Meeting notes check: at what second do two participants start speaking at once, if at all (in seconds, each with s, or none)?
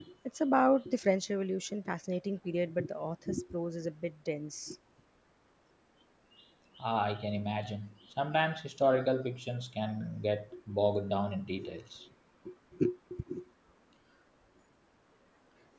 none